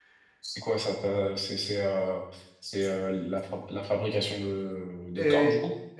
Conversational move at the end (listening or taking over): taking over